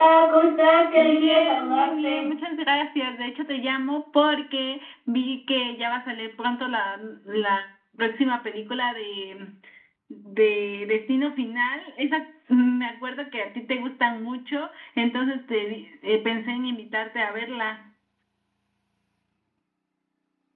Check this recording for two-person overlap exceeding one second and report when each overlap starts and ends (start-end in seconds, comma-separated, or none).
1.0-2.3